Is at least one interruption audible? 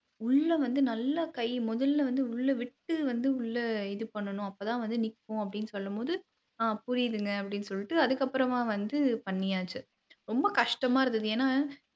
No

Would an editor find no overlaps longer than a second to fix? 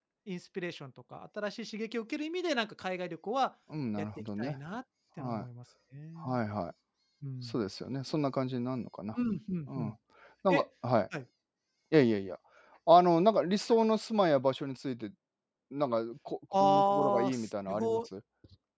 No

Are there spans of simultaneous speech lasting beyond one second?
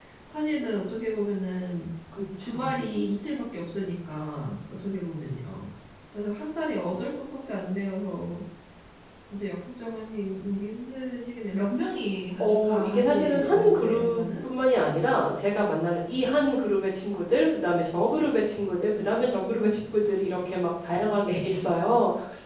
Yes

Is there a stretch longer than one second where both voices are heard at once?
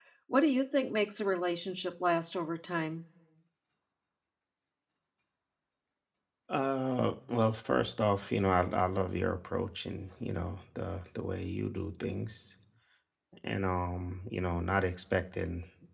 No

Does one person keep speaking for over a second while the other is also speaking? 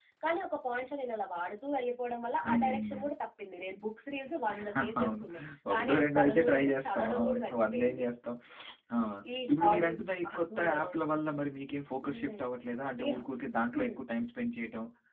Yes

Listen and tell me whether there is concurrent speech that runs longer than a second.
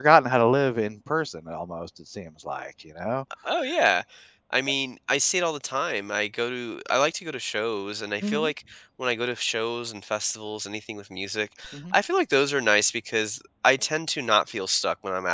No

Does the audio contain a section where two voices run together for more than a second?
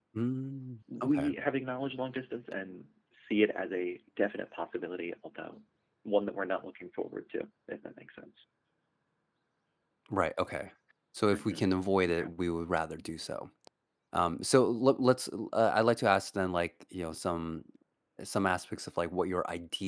No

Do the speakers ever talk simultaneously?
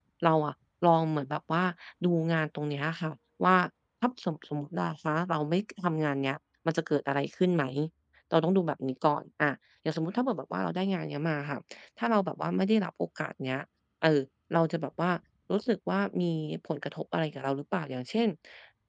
No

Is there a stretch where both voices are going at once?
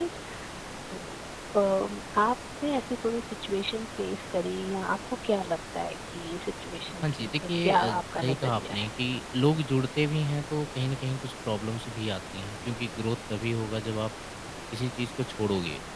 Yes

